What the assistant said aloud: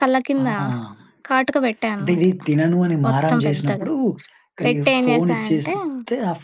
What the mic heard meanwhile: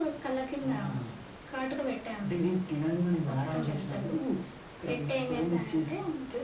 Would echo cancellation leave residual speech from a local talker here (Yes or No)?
No